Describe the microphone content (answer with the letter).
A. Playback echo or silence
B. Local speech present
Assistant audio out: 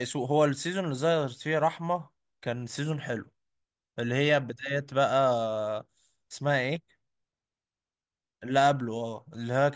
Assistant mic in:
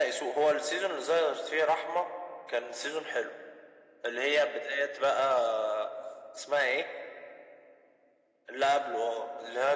A